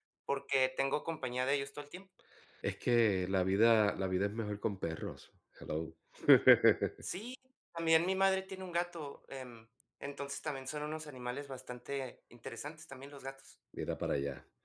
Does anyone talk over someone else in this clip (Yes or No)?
No